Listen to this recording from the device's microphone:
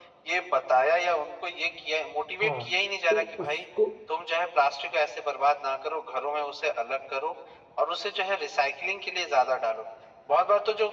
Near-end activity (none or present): present